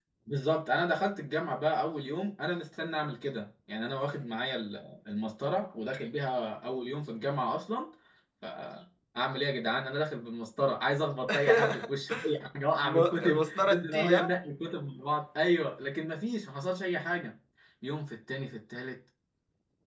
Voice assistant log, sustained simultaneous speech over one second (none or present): present